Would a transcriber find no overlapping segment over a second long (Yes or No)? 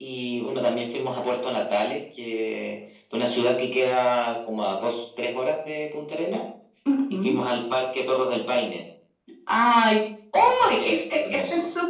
No